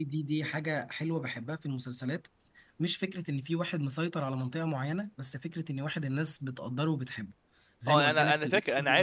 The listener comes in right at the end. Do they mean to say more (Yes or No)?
Yes